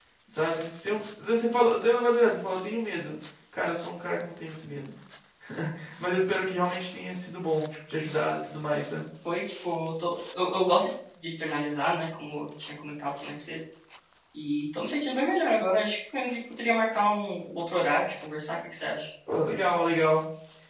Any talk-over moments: No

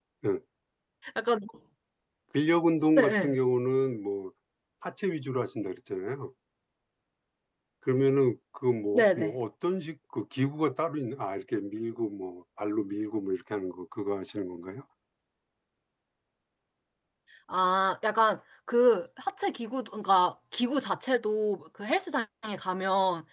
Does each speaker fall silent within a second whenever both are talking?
Yes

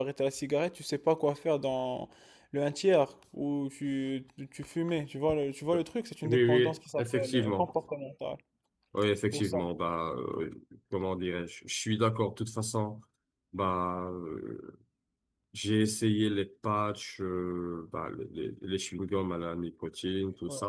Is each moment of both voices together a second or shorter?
No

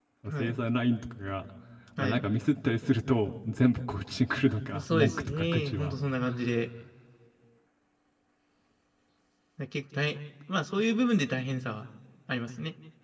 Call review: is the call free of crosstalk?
No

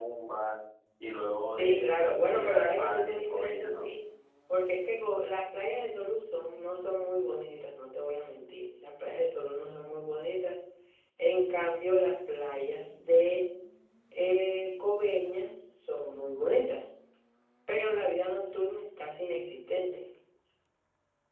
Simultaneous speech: Yes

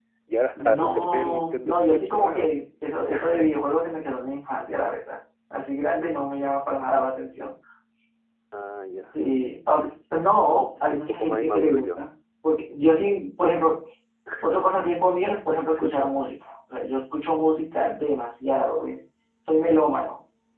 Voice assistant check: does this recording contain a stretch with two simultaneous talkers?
Yes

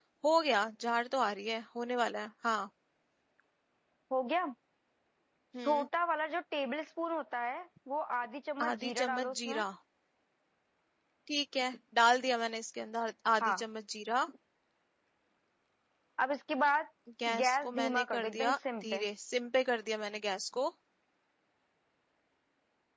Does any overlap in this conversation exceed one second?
Yes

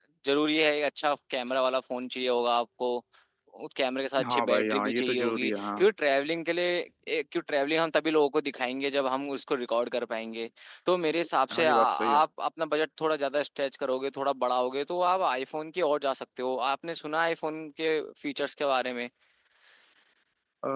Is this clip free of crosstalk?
No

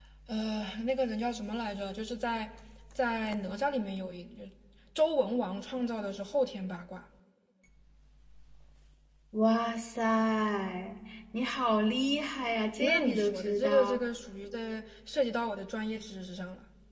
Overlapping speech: Yes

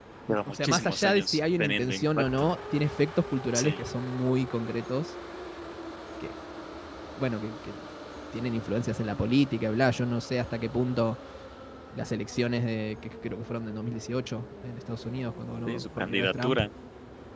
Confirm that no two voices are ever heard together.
No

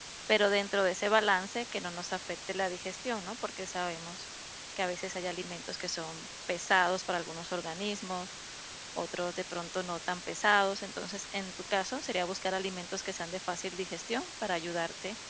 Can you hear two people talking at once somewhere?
No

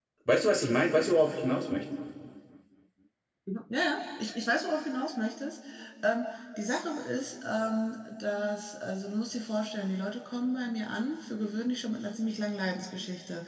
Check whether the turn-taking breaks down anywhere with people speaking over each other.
No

